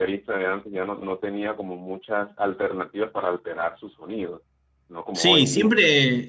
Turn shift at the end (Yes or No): Yes